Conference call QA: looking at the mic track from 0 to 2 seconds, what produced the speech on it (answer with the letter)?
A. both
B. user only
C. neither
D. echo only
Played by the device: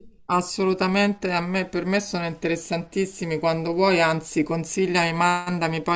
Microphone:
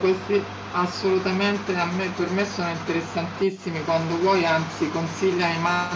D